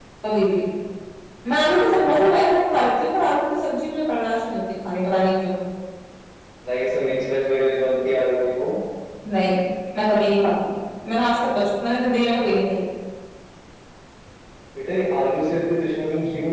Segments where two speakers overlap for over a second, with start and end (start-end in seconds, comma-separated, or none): none